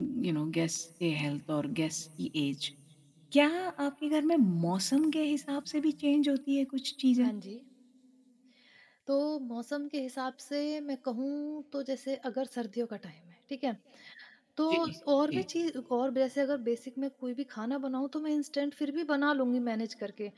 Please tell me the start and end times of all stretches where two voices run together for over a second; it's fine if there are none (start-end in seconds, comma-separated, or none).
none